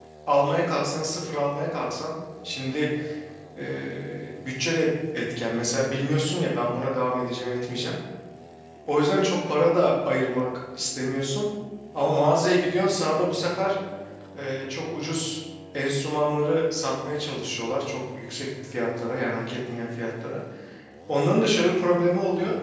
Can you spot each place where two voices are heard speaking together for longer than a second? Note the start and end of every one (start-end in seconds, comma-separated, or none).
none